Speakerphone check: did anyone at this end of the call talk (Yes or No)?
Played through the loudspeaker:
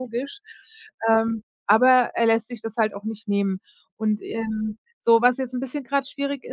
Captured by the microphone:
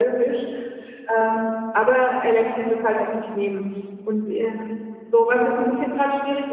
No